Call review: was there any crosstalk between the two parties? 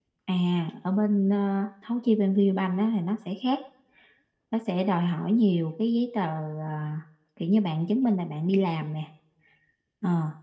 No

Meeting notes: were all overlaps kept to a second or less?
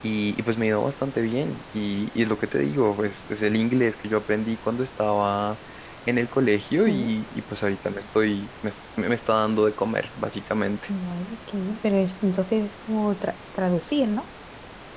Yes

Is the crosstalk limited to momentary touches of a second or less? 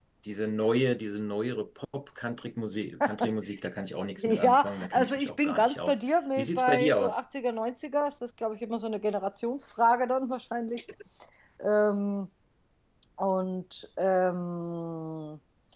No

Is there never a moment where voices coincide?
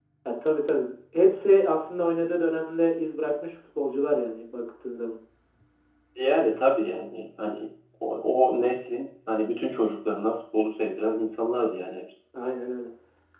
Yes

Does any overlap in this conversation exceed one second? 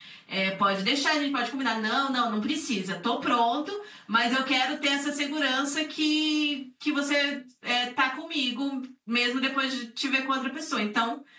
No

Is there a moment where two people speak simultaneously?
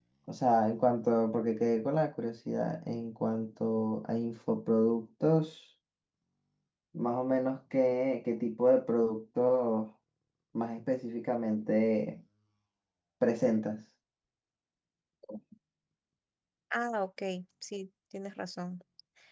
No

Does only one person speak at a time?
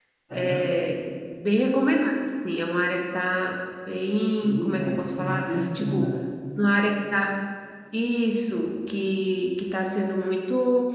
No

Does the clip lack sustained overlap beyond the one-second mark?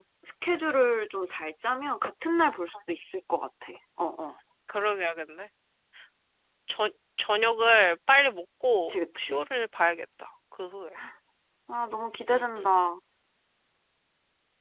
Yes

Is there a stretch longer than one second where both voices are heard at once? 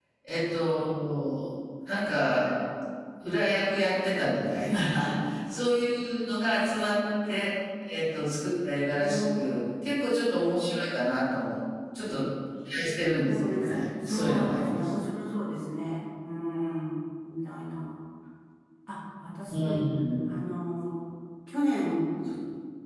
Yes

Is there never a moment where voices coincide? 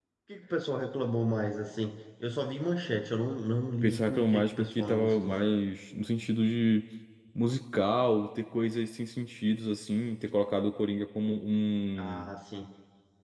No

